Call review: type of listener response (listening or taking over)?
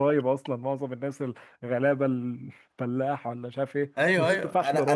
taking over